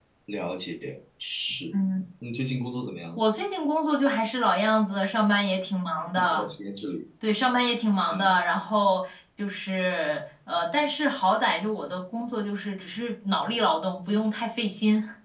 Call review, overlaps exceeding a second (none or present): none